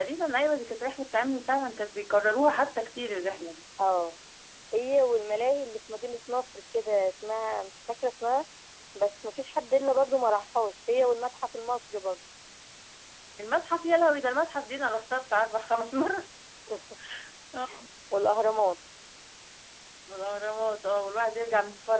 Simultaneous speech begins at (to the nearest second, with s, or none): none